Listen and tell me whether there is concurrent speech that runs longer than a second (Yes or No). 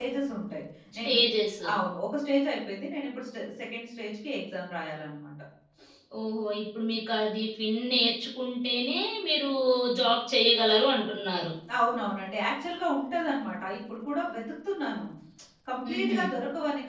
No